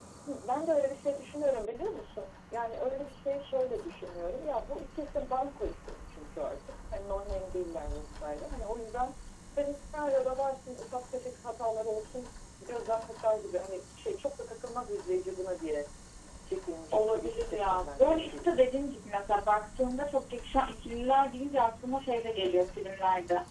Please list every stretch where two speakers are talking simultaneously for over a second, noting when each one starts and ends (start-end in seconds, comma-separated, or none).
16.9-18.7